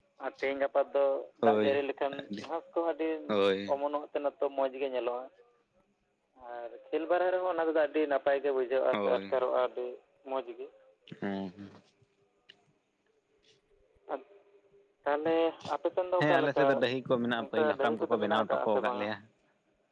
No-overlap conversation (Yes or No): No